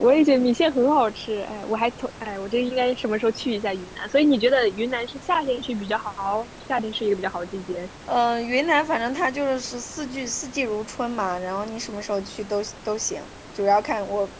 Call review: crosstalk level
none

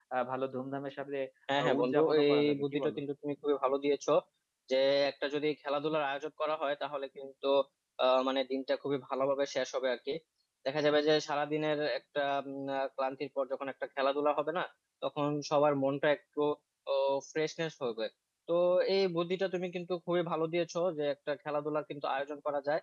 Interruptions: present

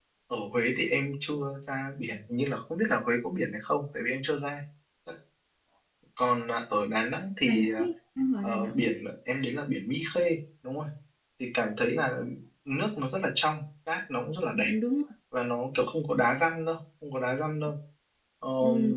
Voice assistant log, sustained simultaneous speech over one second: none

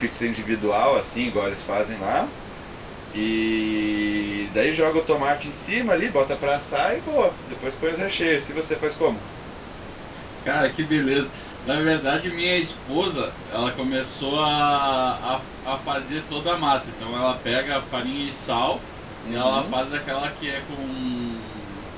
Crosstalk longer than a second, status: none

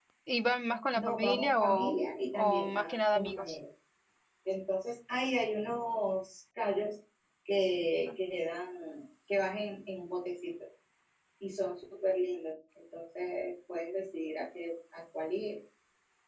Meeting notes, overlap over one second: present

